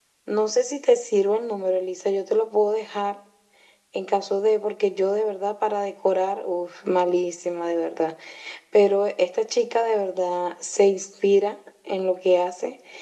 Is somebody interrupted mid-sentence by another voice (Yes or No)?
No